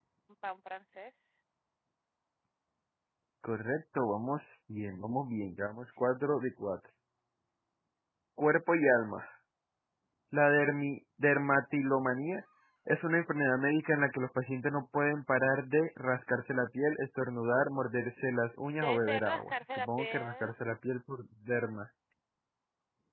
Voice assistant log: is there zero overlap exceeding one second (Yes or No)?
No